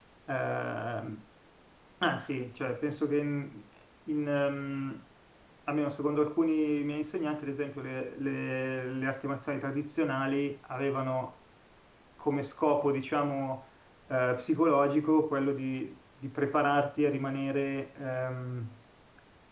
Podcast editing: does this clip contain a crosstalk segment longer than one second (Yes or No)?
No